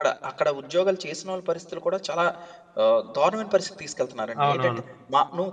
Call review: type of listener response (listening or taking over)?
listening